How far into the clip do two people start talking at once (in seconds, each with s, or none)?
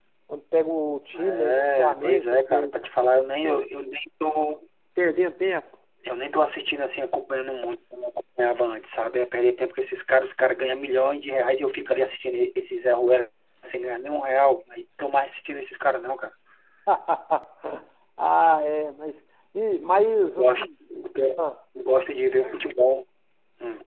1.1 s